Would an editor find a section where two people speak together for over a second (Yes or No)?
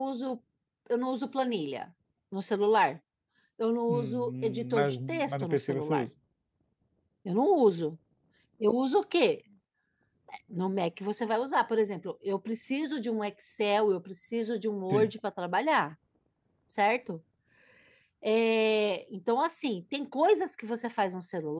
Yes